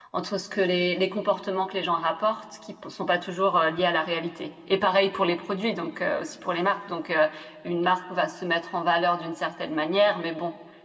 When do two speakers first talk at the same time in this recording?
none

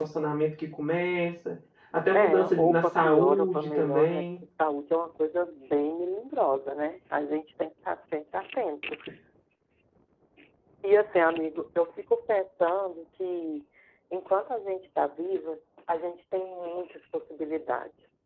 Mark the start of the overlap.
2 s

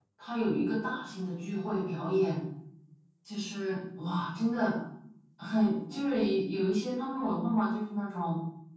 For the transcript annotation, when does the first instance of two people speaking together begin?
none

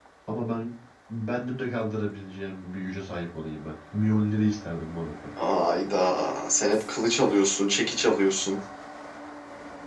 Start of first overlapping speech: none

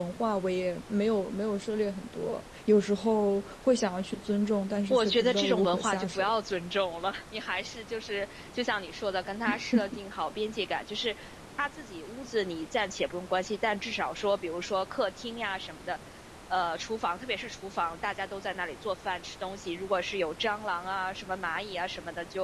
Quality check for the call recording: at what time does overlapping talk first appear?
5 s

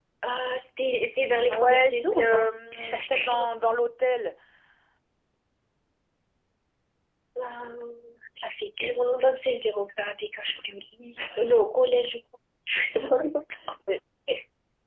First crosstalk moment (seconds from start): 1 s

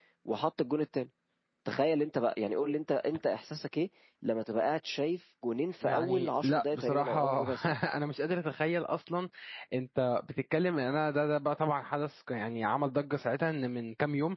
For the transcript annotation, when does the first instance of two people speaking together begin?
6 s

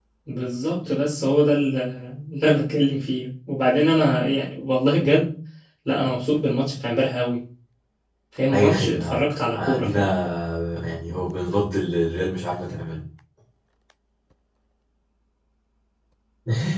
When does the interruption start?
9 s

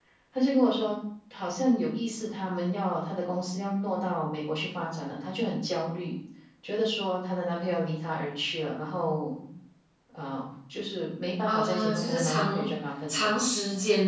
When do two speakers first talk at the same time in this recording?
11 s

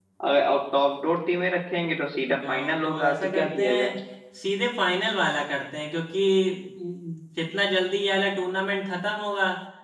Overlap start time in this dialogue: 2 s

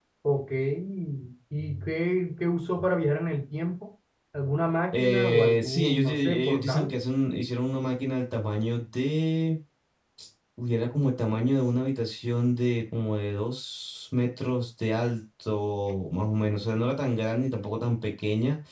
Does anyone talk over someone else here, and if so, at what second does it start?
5 s

